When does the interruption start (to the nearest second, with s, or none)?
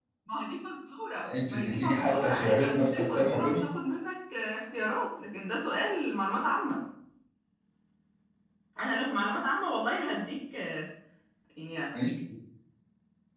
1 s